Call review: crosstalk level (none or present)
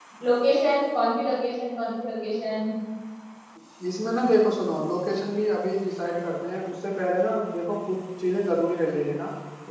none